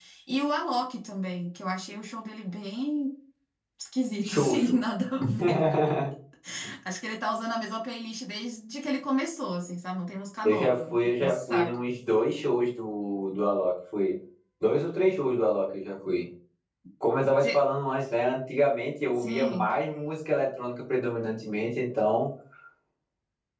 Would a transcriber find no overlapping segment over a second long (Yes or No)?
No